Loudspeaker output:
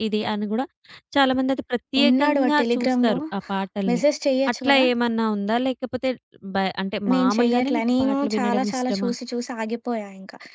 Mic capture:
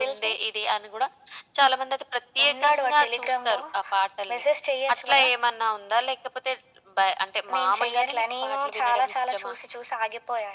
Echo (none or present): present